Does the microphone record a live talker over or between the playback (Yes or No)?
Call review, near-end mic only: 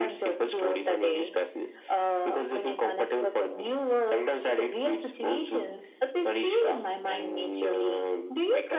No